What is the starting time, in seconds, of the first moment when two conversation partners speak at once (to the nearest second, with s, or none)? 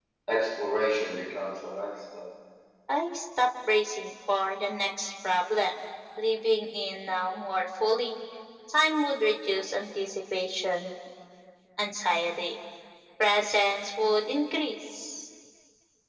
none